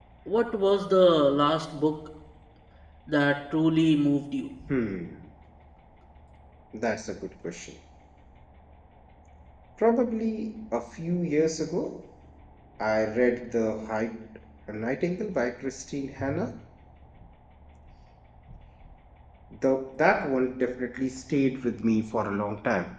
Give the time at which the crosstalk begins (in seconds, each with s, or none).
none